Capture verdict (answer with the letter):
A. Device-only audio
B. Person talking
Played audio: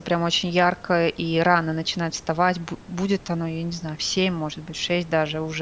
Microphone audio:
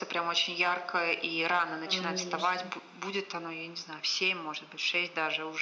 B